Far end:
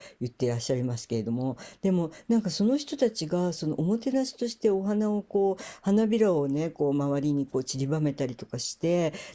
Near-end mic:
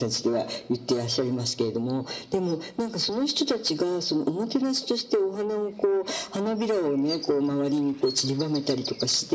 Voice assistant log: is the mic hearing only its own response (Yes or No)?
Yes